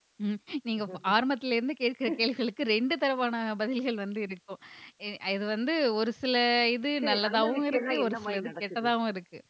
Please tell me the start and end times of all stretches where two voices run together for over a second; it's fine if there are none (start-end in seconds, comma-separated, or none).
7.0-8.9